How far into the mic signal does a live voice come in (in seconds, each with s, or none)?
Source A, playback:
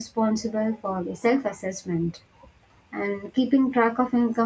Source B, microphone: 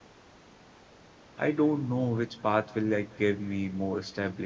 1.4 s